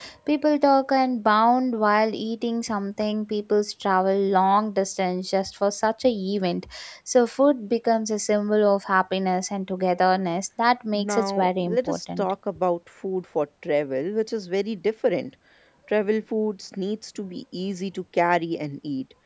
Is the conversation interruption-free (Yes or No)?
No